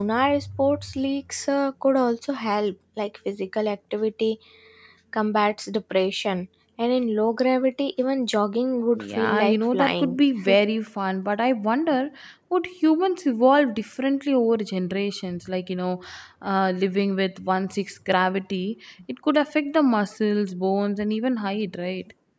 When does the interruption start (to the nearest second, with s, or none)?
9 s